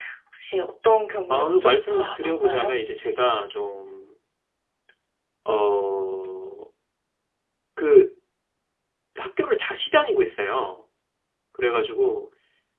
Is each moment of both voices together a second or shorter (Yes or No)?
No